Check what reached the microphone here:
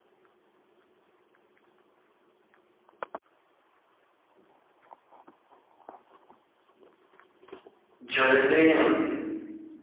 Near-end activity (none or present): present